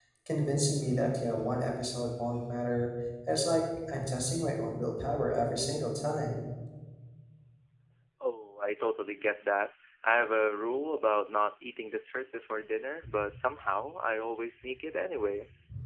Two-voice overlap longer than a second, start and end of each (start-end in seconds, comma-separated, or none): none